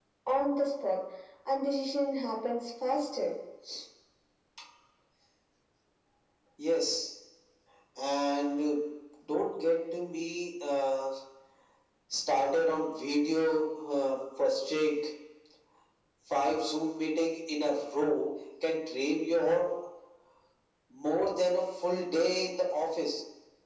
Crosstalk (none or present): none